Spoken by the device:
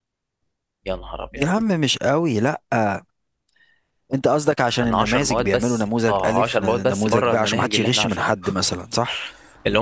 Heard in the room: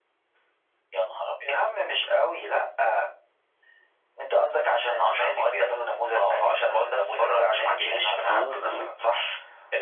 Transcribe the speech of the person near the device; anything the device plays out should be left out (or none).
اه اه